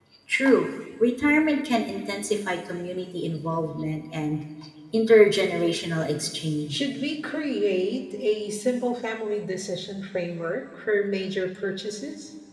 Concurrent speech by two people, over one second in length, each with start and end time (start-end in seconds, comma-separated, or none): none